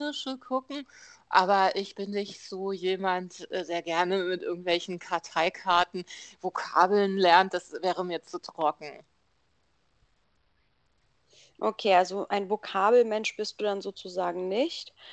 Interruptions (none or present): none